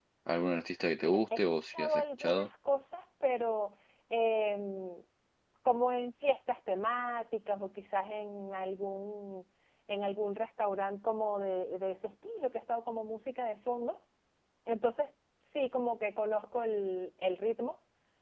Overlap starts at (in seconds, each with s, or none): 1.0 s